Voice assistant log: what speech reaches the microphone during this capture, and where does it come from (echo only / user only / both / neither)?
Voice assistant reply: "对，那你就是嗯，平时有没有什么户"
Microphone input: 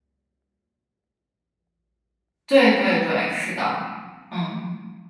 user only